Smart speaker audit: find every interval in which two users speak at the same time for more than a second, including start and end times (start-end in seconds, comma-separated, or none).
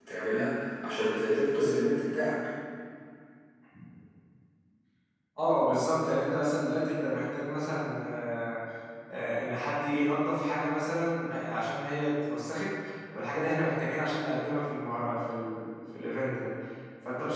none